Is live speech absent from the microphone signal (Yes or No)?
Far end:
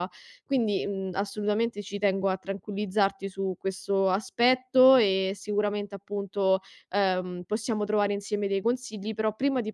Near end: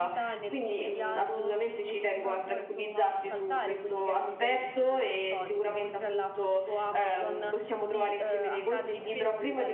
No